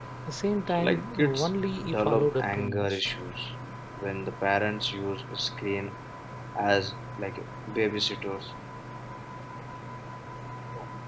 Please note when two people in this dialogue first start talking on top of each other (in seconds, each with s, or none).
0.7 s